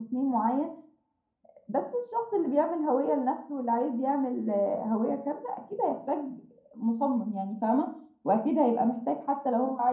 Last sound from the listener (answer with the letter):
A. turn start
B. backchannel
B